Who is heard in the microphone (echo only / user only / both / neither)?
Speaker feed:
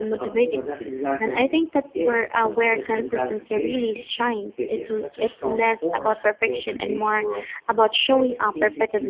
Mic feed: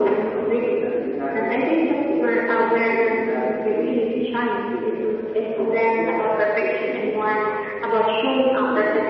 echo only